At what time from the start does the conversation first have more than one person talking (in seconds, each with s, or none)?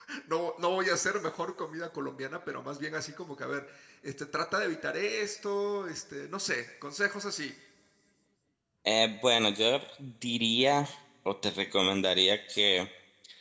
none